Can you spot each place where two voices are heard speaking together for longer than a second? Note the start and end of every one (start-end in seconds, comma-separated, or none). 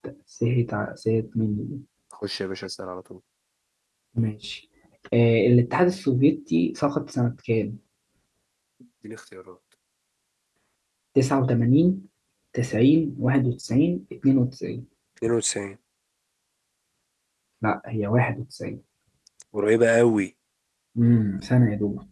none